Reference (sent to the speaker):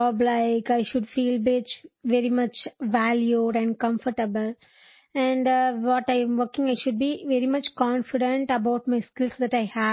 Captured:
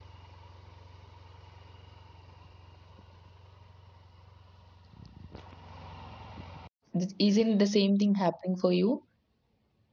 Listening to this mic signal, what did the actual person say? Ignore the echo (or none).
Th- isn't the same thing happening for you